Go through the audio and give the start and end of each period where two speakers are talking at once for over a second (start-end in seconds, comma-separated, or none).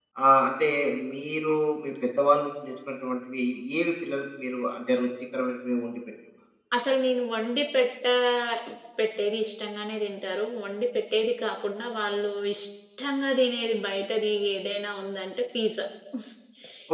none